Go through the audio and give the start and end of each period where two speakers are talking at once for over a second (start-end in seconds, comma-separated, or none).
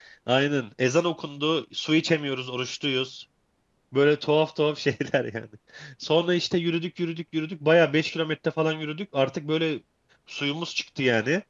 none